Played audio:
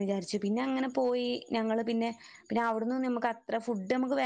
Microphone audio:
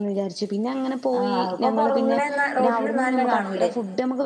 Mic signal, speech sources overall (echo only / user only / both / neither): both